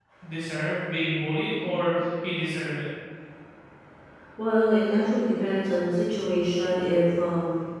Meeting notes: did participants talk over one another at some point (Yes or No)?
No